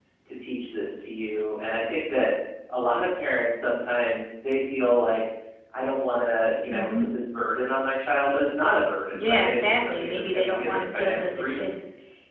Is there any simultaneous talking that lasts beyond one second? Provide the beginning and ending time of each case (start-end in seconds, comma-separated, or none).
9.1-11.7